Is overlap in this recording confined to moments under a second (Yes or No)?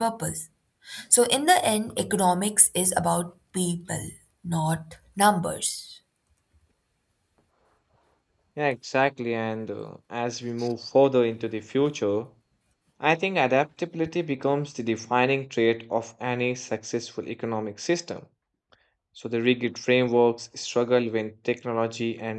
Yes